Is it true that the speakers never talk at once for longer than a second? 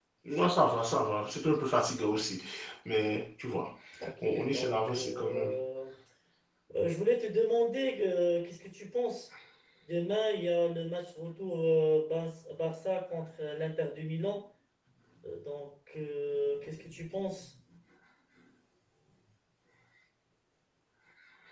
No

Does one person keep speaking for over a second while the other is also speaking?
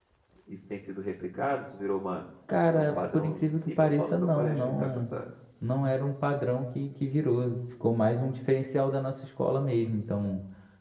Yes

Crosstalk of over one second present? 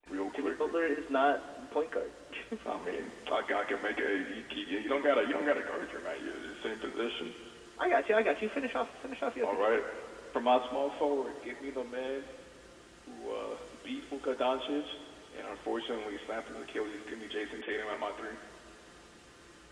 No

